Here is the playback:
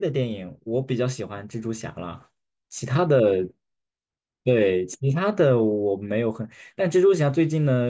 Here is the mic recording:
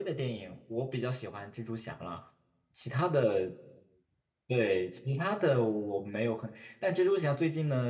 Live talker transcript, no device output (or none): none